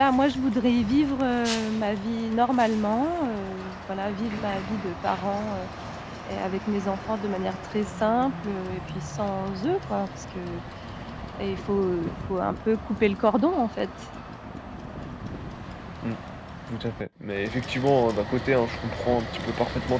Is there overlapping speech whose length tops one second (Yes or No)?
No